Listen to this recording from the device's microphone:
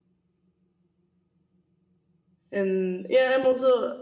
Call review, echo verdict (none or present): none